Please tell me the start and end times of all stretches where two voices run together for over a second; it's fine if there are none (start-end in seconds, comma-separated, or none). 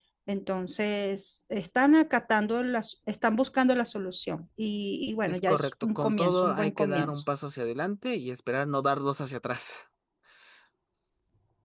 5.3-7.2